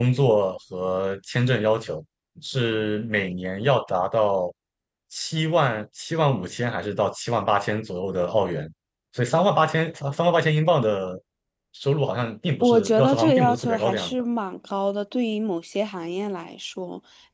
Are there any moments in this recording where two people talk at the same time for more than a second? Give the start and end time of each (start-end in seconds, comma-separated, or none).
12.6-14.1